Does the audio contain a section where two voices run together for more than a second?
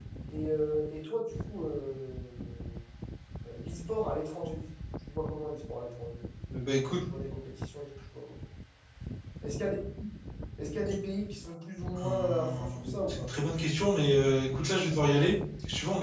Yes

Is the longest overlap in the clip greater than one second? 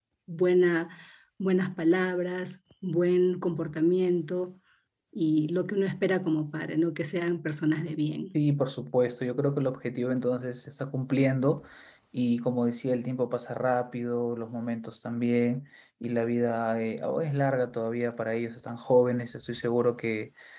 No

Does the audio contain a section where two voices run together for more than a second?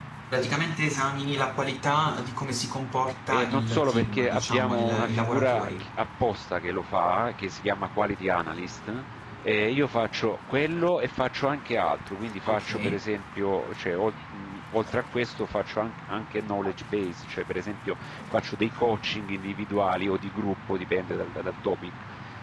Yes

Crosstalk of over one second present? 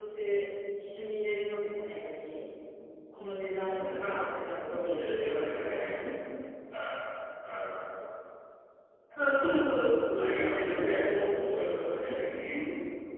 Yes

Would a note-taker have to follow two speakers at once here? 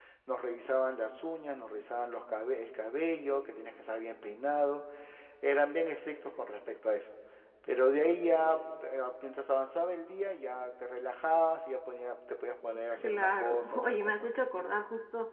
Yes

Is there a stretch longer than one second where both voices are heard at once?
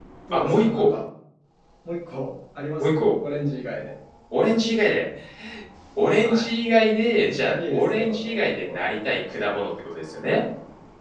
Yes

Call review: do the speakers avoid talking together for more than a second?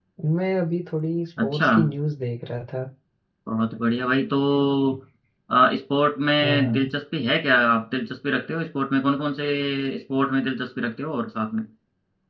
Yes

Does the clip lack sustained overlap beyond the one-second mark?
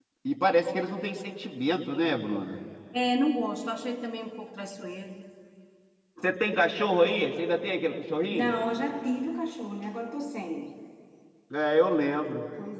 Yes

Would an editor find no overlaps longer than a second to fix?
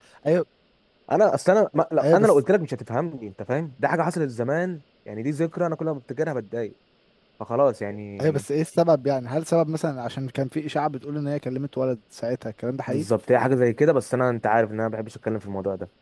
Yes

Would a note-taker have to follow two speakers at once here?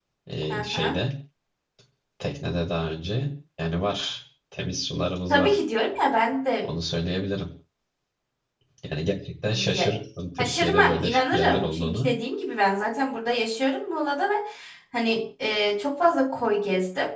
Yes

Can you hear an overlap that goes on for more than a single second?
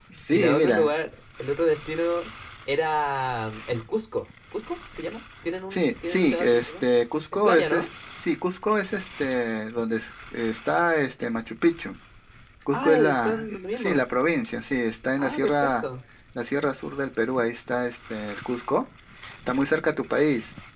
Yes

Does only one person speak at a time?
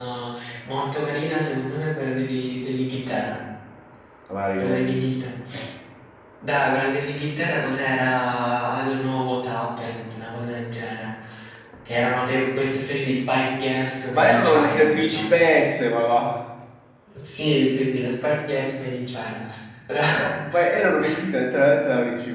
No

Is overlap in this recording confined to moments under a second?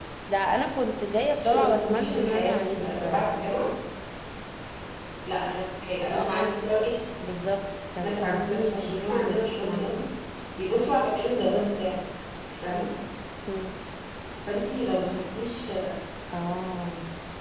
No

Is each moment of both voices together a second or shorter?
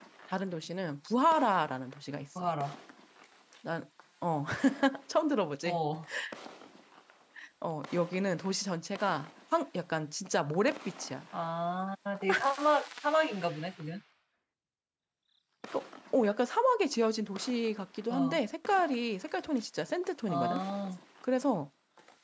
Yes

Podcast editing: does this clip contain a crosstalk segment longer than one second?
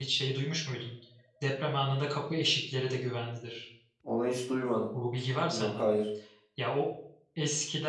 No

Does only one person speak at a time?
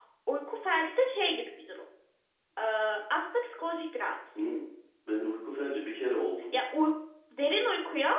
Yes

